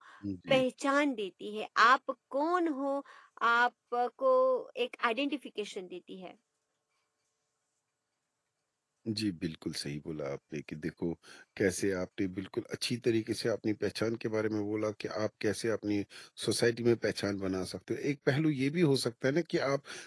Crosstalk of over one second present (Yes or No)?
No